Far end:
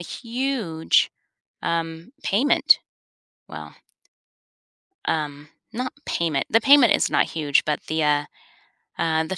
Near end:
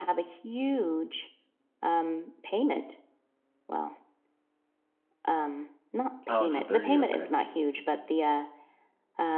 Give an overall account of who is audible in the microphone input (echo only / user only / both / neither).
both